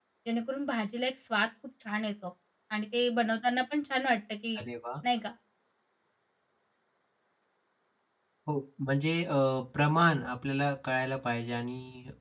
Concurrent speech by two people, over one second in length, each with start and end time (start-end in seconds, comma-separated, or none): none